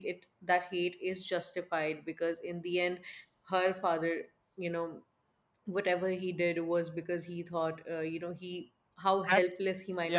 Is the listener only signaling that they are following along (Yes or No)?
No